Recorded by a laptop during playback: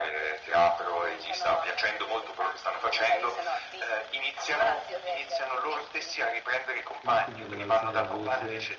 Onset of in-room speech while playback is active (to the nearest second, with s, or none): 7 s